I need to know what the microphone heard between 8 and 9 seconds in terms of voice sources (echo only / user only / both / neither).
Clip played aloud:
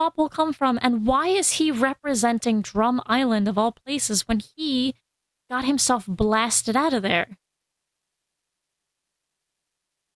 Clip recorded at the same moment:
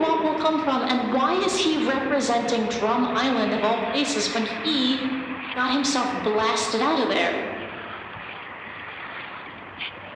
neither